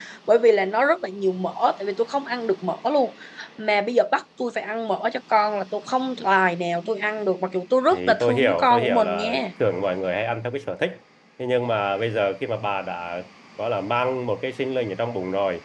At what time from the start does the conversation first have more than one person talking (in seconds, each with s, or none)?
7.9 s